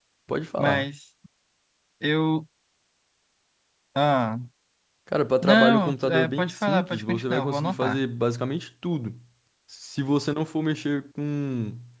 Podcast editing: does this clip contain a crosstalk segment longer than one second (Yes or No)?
Yes